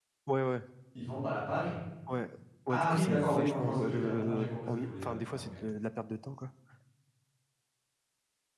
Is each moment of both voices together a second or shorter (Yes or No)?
No